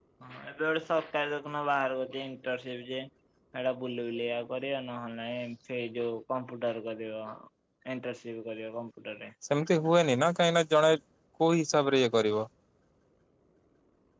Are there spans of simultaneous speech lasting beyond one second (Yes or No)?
No